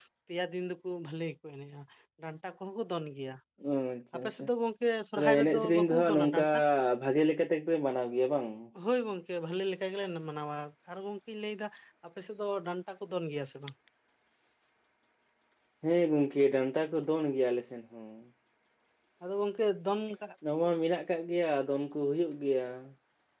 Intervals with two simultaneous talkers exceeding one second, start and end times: 5.2-6.4

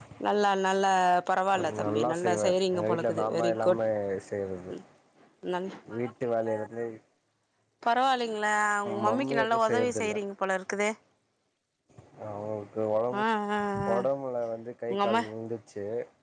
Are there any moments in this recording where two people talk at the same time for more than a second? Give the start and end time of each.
1.8-3.8, 8.9-10.1

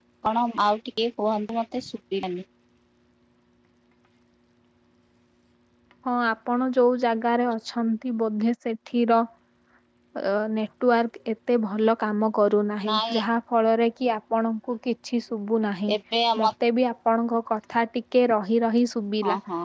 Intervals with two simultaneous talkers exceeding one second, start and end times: none

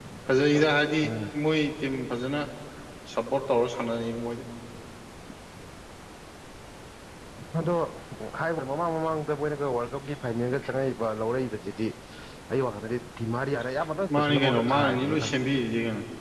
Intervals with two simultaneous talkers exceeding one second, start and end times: 14.1-15.3

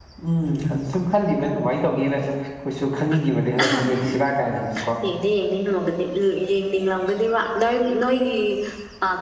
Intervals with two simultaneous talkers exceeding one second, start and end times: none

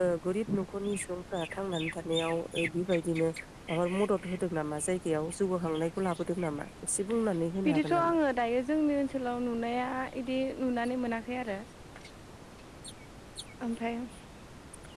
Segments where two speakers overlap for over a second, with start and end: none

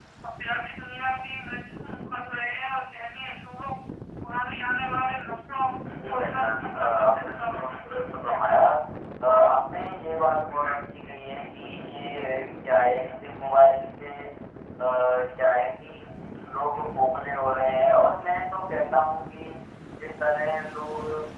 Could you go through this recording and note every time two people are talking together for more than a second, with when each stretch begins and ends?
6.0-7.8

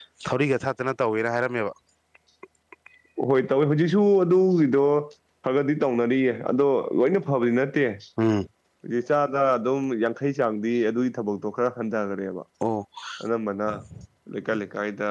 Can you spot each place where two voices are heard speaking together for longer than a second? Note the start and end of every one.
none

